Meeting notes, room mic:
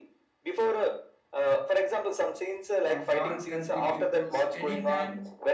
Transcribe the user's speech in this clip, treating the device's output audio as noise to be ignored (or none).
uh, foreign country peoples anytime